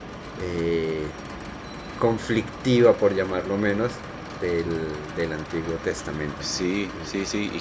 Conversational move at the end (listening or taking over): taking over